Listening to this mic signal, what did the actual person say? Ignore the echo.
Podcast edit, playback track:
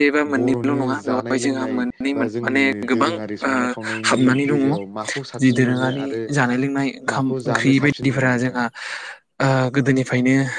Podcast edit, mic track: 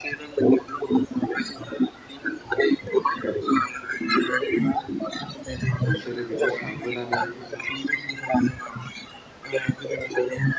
बिसोरो बे सानबोनानै

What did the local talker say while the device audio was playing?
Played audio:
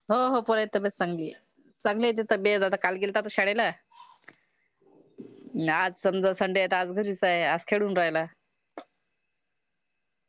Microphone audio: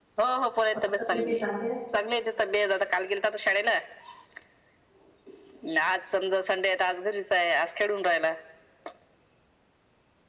आ कसे कांदे आण

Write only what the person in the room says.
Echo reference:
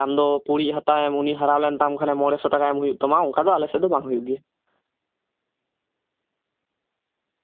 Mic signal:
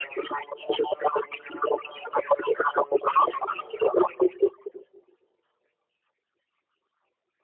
none

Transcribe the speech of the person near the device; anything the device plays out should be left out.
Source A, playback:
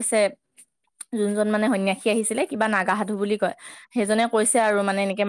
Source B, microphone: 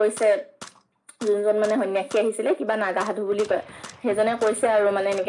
none

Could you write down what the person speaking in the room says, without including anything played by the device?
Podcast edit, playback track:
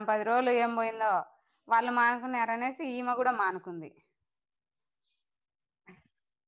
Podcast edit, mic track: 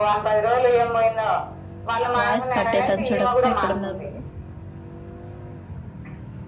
వాయిస్ కట్ అయితాంది చూడు అక్క ఎక్కడున్నారు మీరు.

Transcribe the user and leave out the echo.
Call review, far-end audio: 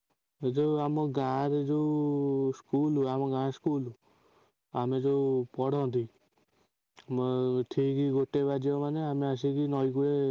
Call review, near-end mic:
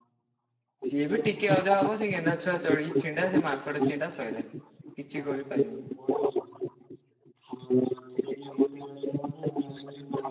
ସିଏ ବି ଟିକେ ଅଧେ ହବ, ସେ ଗେନ୍ଧା ଛୁଆ ଚଢ ଛିଣ୍ଡା ସେ ମାଙ୍କଡ ଚିଣ୍ଡା ଶୋଇଲା କିଛି ଗୋଳି ପାଇବୁନି।

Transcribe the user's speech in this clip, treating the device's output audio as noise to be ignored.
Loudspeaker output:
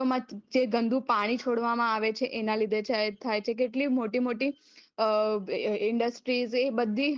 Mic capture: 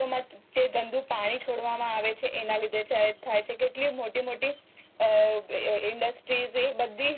none

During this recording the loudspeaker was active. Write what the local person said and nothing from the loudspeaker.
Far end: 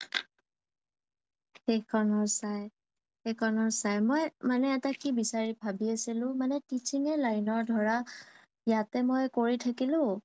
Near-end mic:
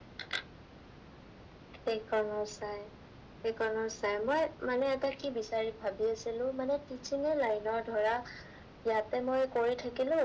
none

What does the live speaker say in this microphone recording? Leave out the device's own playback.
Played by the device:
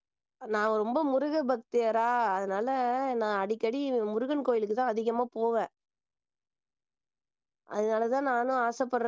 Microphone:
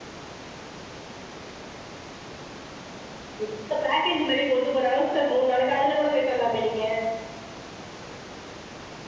இந்த பேக்கேஜ் மாரி போட்டு போறாங்க சிஸ்டர் மூண் நாளைக்கு அதுல கூட போய்ட்டு வர்லாமே நீங்க

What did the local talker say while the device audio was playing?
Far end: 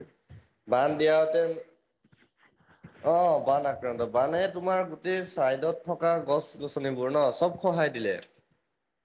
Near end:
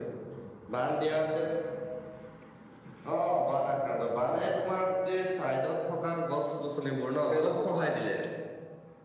কোনে ল'ব কোৱা?

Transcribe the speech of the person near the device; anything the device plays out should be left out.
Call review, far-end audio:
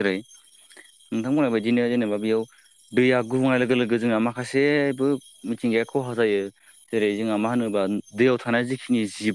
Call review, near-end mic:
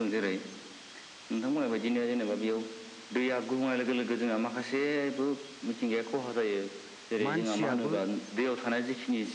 मानसियाबो

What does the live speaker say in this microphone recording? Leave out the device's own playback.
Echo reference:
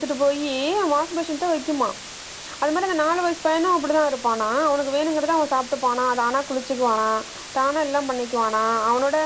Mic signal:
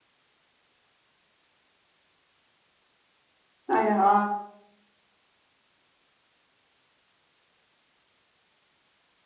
அ

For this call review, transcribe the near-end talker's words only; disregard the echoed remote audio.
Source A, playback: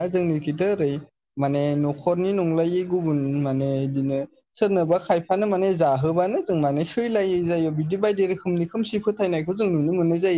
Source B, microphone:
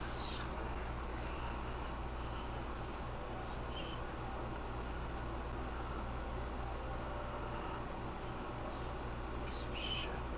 none

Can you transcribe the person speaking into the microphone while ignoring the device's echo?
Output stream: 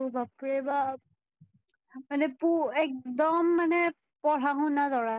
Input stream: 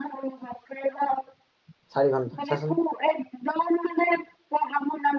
চাৰি ঘন্টা চাচোন

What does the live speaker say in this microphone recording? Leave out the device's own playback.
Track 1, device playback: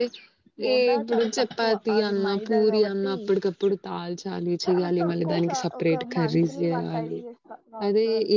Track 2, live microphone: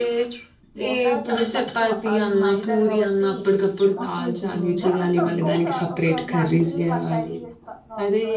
అప్పగదరి నండి మ్

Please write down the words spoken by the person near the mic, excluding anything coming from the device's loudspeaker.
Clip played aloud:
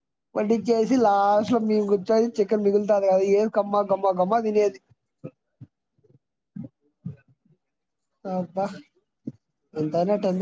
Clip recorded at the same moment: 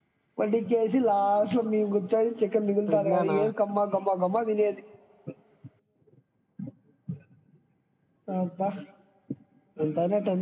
విజ్ఞానా

